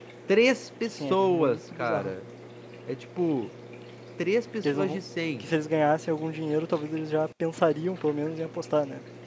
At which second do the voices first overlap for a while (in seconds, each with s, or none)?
0.9 s